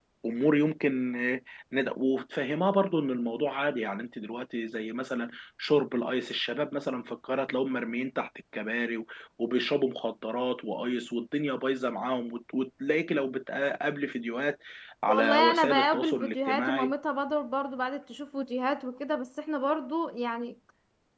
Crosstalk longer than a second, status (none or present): present